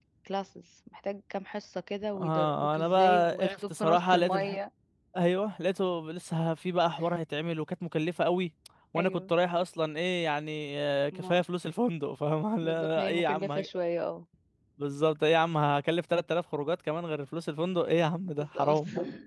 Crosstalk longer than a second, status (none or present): present